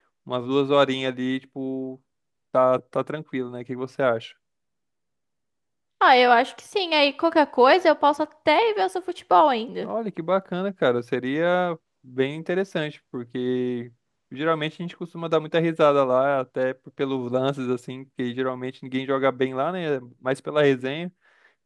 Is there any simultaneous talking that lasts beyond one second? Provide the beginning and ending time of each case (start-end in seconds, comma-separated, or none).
none